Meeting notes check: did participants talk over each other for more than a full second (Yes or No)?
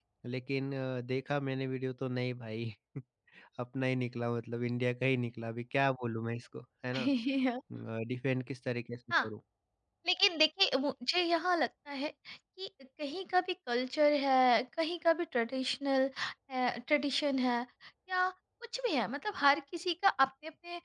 No